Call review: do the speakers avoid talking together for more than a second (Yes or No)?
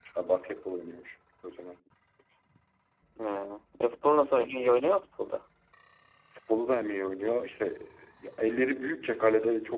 Yes